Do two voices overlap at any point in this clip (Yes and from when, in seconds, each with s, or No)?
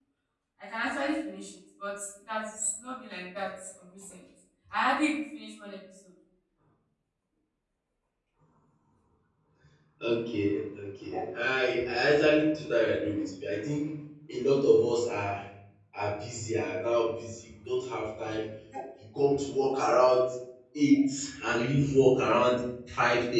No